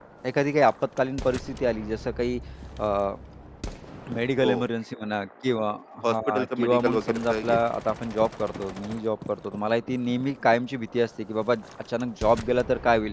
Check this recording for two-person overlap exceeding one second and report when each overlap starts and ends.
6.1-7.6

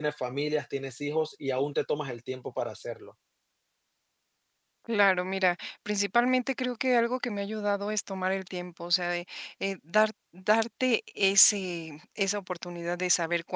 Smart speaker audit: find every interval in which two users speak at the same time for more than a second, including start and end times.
none

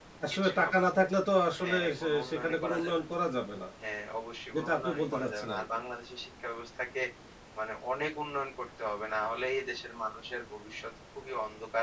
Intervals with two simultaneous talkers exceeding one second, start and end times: 1.6-3.0, 4.5-5.8

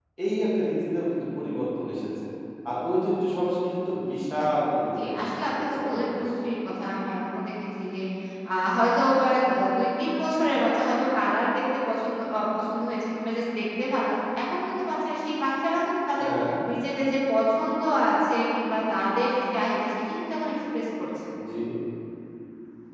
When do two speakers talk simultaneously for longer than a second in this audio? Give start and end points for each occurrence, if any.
5.0-6.3

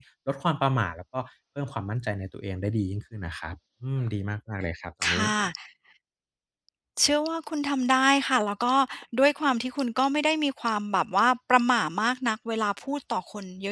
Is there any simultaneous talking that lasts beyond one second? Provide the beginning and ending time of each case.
none

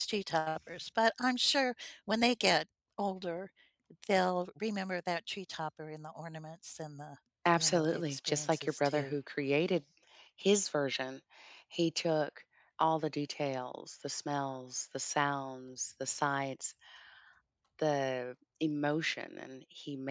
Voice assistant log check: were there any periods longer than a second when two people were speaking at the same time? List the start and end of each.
7.6-9.1

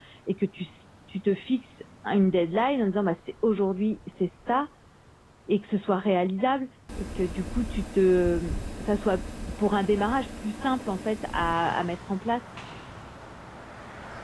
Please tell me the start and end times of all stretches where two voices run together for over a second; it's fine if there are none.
none

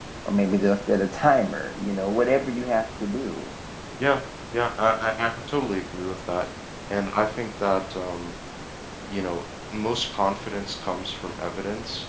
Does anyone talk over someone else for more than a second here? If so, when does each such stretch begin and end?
none

